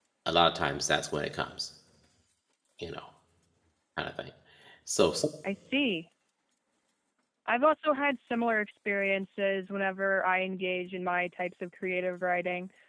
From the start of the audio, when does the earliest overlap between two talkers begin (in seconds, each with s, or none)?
none